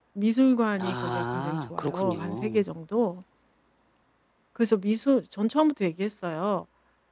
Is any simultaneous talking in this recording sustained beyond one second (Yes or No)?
Yes